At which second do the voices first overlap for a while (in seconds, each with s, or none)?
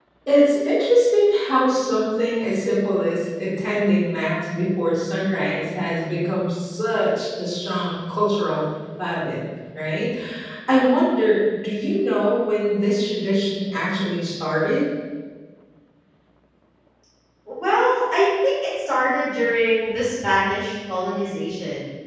none